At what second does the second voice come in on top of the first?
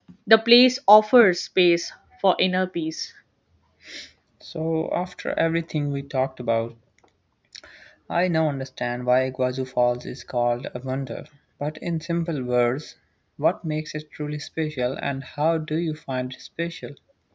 none

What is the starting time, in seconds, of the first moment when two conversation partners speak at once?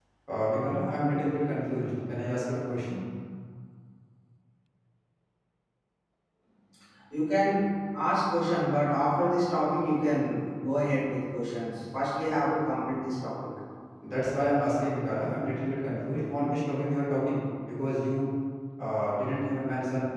none

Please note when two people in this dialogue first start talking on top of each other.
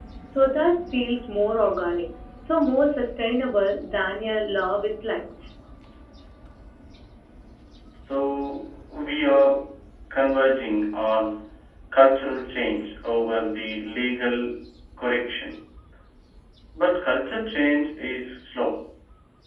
none

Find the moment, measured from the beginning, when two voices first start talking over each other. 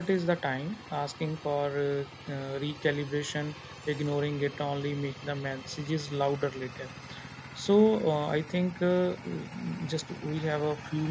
none

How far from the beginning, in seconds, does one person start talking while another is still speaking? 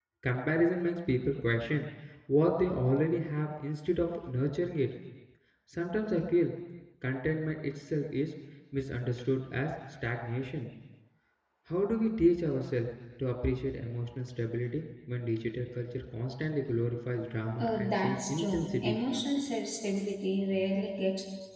17.6 s

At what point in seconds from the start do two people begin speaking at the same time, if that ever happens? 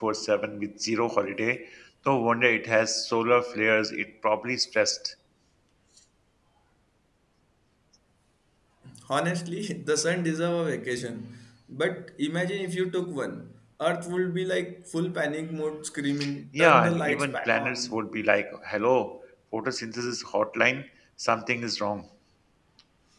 16.6 s

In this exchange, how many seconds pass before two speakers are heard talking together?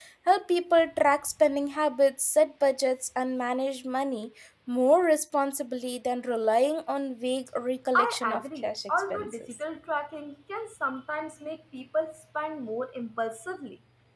7.9 s

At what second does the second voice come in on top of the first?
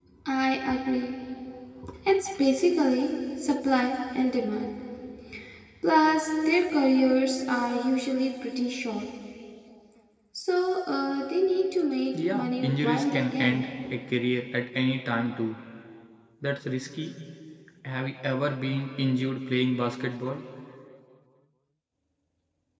12.1 s

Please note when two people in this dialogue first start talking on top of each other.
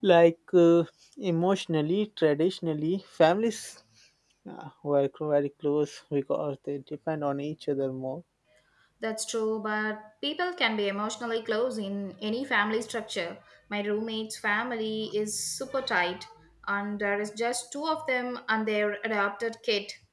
none

